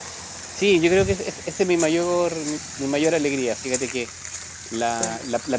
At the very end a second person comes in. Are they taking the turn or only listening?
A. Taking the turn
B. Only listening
B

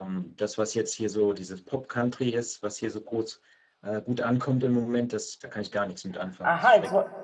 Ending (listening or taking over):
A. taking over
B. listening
A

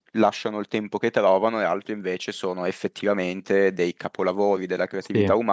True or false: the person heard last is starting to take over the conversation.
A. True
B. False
B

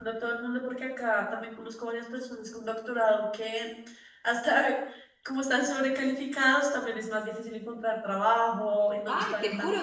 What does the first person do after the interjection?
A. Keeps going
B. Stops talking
B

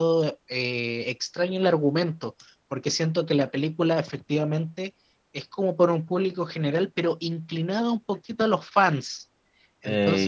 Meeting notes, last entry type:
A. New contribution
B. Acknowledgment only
A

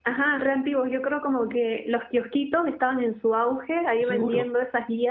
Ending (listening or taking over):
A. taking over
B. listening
B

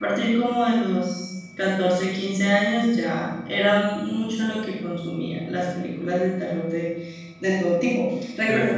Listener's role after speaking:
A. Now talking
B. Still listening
B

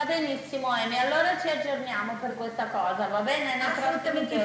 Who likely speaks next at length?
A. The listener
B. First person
A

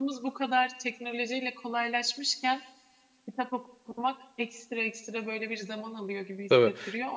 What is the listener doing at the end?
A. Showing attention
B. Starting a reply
A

